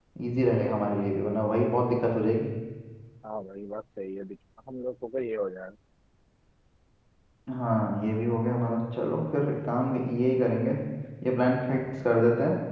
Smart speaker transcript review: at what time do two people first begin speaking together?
none

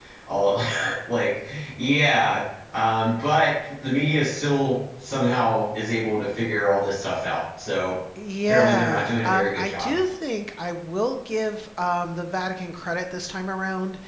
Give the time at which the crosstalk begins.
8 s

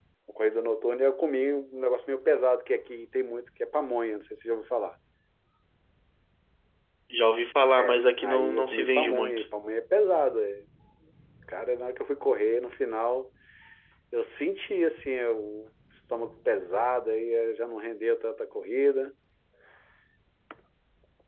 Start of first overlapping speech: 8 s

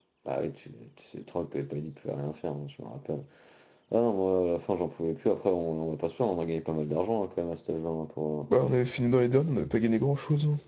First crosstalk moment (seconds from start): none

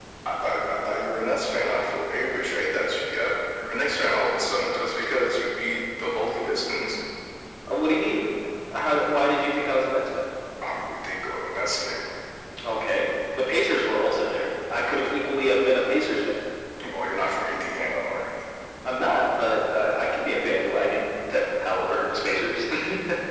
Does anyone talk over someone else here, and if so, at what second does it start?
none

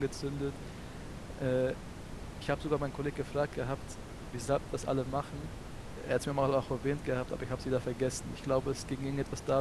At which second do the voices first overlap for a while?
none

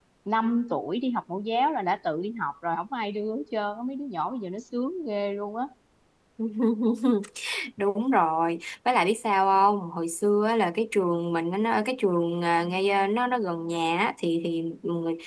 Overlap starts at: none

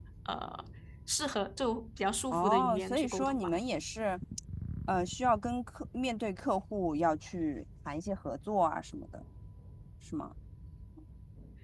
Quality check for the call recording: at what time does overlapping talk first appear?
2 s

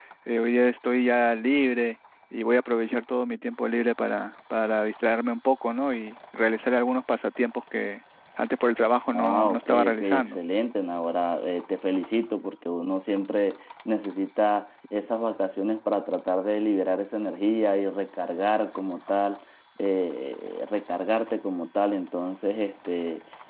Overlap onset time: 9 s

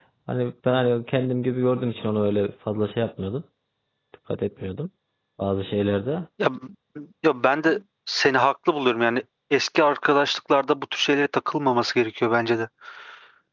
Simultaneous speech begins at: none

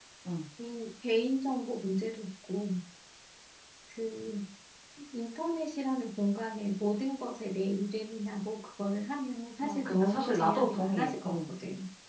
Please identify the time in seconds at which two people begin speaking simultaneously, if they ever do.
10 s

